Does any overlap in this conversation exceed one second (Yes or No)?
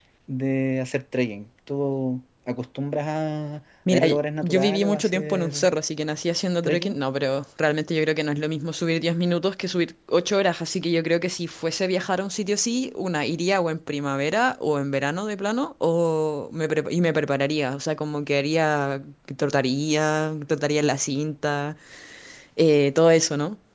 Yes